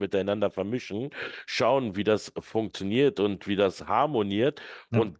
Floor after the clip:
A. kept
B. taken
A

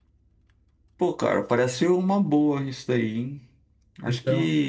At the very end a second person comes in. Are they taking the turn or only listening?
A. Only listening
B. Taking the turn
A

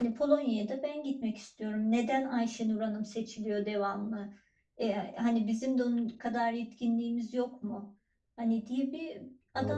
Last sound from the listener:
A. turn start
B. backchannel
B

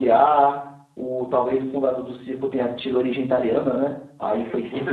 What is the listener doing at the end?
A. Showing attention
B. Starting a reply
B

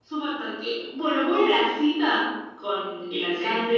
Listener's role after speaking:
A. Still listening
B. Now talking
A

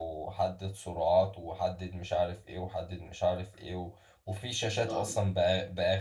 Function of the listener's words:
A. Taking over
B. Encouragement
B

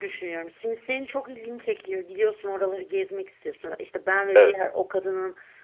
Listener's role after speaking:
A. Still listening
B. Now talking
A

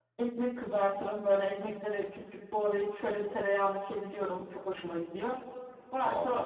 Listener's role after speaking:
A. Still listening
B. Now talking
A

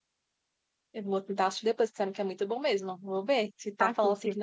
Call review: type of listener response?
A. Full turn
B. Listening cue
B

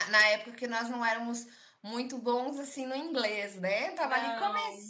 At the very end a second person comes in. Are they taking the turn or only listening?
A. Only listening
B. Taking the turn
A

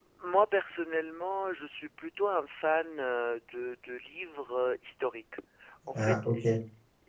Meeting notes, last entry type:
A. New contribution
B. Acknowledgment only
B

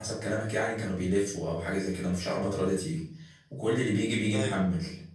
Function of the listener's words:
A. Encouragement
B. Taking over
A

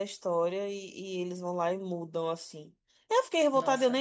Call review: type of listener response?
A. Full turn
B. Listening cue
A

